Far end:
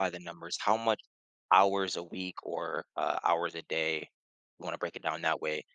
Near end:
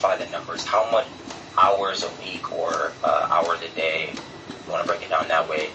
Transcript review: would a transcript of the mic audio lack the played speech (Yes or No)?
No